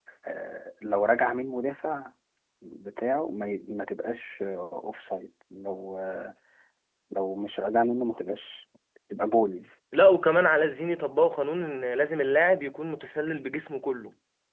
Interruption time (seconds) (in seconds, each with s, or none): none